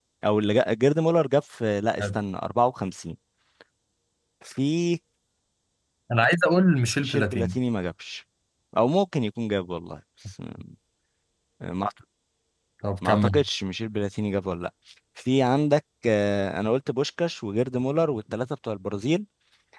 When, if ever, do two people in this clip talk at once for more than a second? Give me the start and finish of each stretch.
none

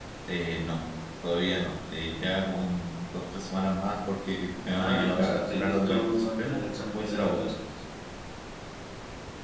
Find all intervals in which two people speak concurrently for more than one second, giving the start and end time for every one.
4.9-7.5

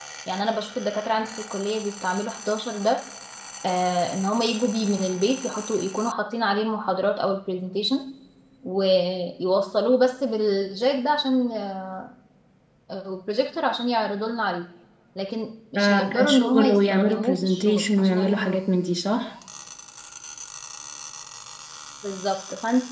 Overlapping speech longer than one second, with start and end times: 15.8-18.6

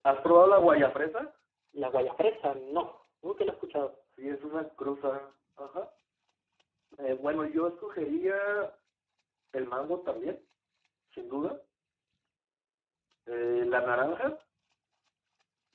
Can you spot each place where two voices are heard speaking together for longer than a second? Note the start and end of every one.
none

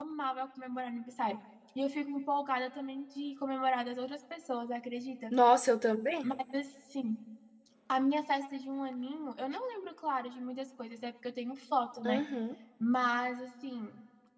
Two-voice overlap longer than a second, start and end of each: none

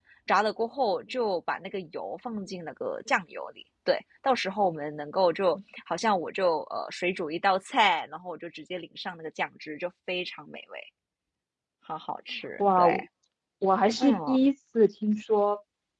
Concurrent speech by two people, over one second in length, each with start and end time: none

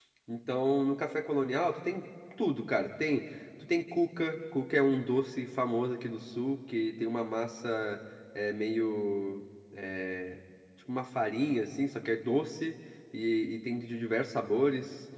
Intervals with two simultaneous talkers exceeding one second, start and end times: none

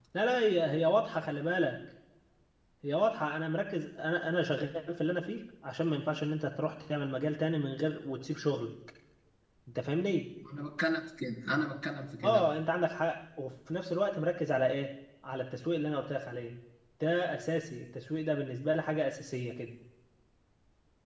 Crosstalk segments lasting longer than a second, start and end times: none

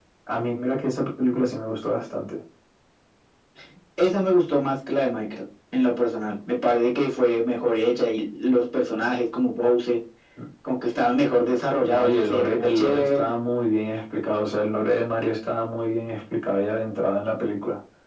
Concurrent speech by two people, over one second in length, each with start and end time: 11.8-13.3

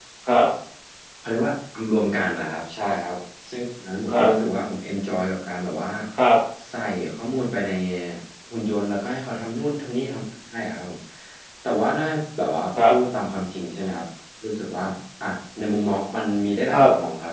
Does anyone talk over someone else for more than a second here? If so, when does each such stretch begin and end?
none

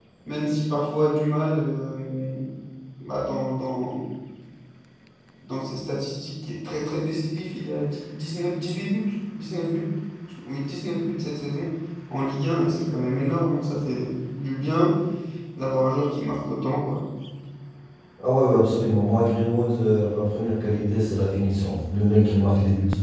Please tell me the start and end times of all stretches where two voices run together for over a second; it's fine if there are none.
none

